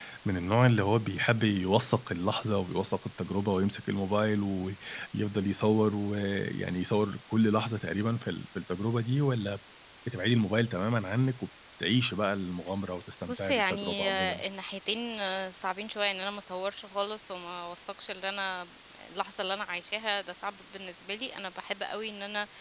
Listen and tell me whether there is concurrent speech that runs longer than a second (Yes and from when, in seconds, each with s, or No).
Yes, from 13.2 s